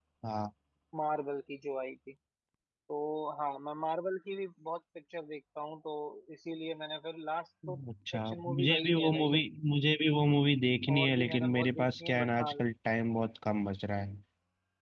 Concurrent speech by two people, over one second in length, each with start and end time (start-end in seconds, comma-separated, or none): 8.2-9.4, 10.9-12.5